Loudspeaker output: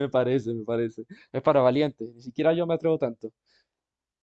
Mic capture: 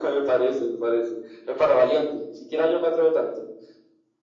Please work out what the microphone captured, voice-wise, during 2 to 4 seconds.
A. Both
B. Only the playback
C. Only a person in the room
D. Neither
B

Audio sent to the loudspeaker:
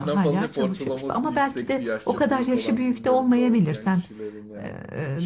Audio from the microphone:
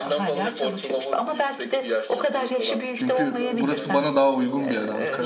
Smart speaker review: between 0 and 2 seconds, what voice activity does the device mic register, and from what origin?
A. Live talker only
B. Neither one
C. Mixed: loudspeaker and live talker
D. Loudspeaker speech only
D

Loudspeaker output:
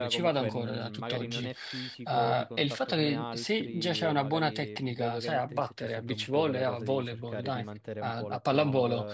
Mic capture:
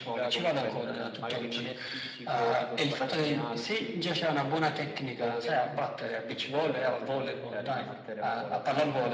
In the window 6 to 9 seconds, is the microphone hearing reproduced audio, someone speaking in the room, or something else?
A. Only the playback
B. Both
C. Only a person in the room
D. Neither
A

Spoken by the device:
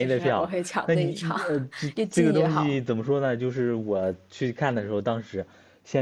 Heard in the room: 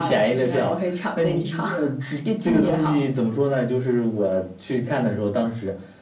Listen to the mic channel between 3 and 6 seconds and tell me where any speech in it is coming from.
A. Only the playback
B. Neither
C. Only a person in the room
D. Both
A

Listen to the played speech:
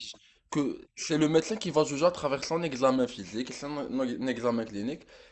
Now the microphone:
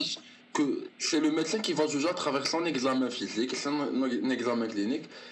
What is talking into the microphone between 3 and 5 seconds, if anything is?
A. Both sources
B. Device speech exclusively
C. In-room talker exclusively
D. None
B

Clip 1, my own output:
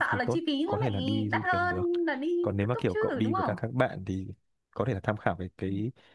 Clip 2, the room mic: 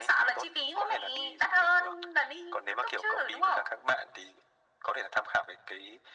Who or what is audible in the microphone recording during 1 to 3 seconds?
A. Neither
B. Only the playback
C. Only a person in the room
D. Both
B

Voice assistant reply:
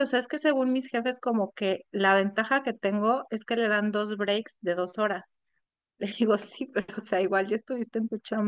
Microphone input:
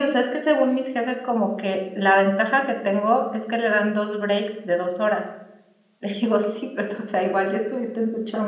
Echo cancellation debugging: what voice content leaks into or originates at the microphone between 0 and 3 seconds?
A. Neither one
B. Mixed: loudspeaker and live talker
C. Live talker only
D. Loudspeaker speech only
D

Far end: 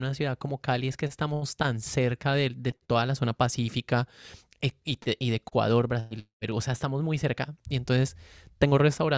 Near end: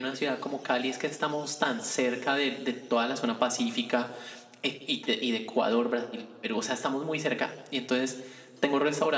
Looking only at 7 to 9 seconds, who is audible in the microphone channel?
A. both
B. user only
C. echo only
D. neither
C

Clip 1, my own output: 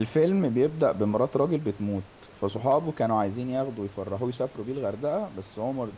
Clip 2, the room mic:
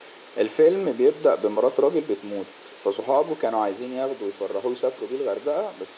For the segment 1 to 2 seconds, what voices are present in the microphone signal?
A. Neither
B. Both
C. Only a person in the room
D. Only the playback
D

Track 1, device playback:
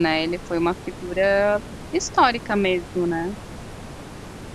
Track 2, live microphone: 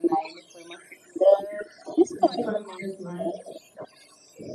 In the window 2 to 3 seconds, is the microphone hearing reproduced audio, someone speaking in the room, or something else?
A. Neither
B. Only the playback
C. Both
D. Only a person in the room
C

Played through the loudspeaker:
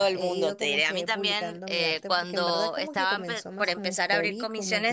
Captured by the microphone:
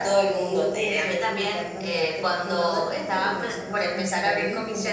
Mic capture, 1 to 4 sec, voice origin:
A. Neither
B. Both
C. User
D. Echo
D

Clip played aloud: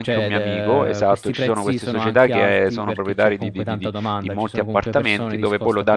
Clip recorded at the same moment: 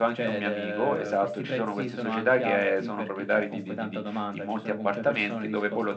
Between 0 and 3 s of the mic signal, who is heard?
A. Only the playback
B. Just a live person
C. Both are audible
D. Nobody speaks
A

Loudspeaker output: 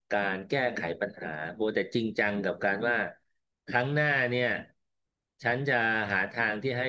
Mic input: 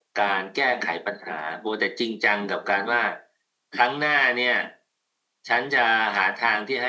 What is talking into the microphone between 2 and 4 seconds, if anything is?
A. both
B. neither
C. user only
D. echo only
D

